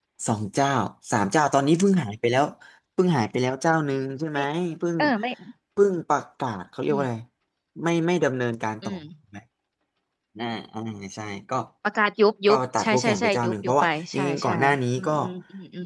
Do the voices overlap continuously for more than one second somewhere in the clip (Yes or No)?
Yes